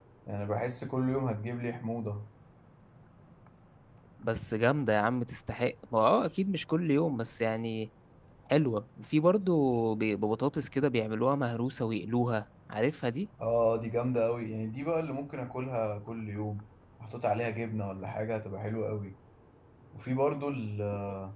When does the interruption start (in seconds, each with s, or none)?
none